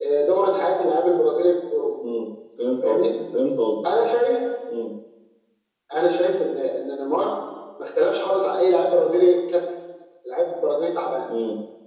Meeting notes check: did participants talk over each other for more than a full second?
No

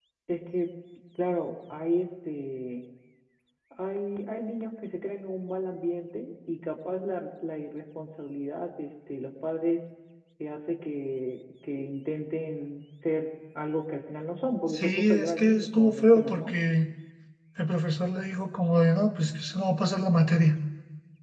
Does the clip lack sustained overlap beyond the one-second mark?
No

